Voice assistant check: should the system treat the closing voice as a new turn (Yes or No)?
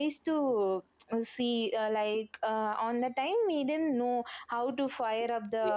No